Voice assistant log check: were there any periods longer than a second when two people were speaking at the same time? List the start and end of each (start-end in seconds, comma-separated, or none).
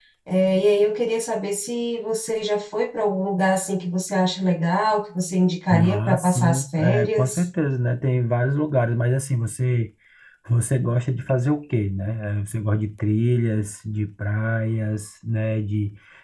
5.7-7.4